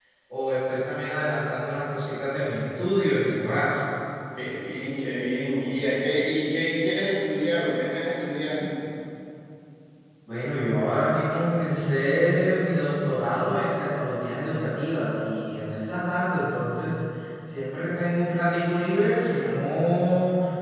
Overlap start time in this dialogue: none

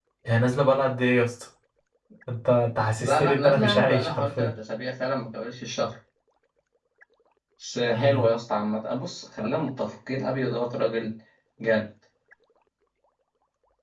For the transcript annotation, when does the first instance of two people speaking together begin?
3.0 s

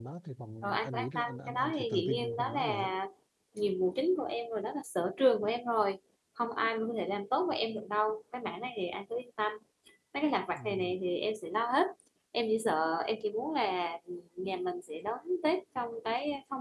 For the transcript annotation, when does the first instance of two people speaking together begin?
0.6 s

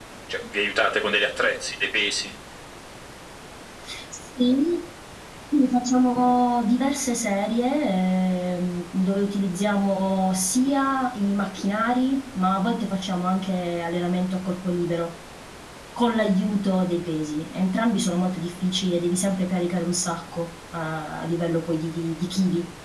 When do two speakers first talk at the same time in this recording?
none

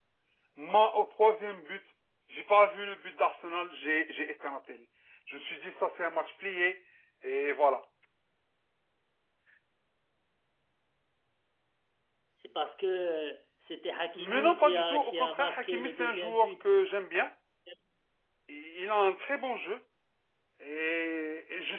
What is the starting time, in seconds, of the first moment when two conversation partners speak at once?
14.2 s

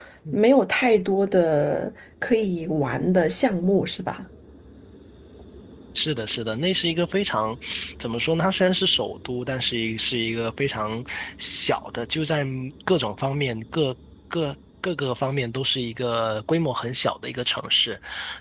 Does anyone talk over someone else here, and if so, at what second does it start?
none

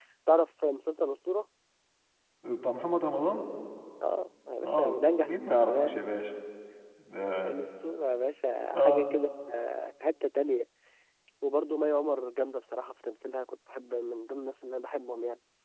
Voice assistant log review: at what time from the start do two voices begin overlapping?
4.6 s

